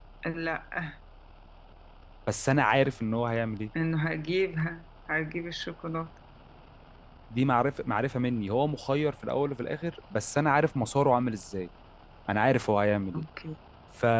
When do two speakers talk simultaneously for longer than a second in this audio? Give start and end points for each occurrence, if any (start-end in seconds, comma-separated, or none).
none